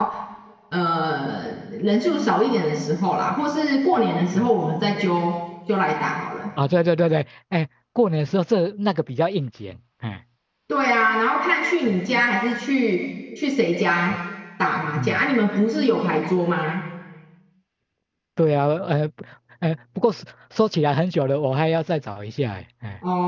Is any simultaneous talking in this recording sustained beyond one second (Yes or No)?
No